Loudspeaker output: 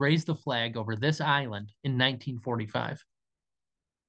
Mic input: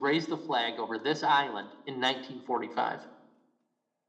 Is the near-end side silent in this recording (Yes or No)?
Yes